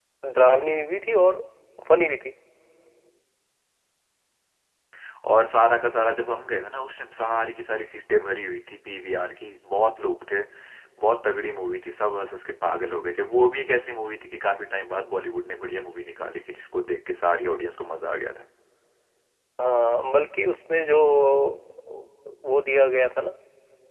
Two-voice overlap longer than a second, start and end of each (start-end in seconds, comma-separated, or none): none